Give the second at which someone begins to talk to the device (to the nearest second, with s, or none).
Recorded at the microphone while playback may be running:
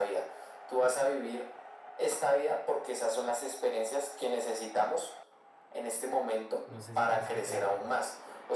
7 s